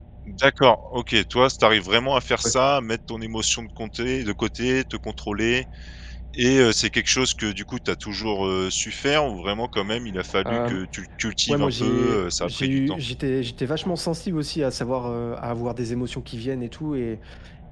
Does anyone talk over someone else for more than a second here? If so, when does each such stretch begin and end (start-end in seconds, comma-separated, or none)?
11.5-13.0